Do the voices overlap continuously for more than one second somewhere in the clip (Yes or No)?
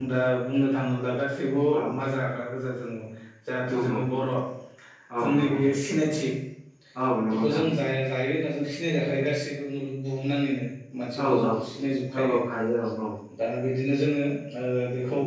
No